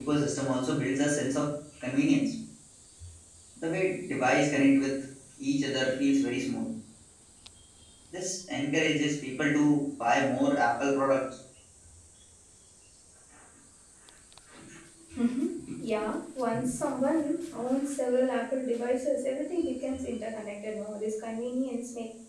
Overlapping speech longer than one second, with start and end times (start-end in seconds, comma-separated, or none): none